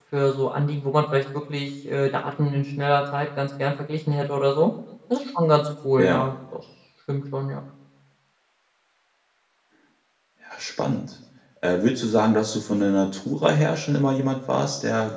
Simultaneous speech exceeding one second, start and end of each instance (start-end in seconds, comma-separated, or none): none